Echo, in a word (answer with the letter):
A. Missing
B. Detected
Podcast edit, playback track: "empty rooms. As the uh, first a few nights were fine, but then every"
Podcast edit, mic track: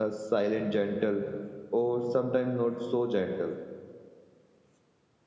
A